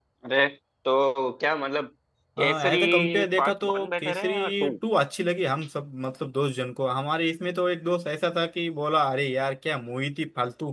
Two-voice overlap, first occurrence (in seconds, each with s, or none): 2.4 s